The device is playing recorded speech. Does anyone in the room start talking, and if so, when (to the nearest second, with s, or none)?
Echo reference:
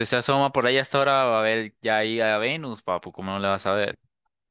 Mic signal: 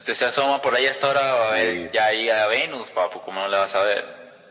1 s